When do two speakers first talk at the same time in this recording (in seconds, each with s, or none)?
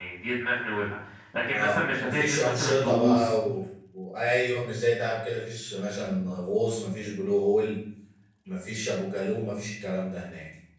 1.5 s